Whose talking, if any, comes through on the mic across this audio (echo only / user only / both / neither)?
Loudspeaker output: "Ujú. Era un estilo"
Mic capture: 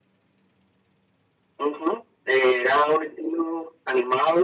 echo only